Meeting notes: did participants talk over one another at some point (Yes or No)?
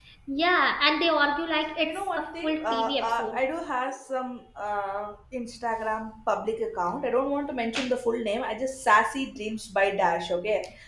Yes